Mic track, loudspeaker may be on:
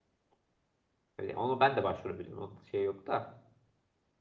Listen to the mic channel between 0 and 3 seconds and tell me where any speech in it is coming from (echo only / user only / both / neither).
user only